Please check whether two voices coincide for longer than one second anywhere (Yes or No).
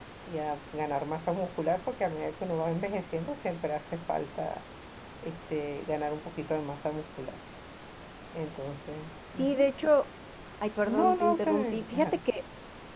Yes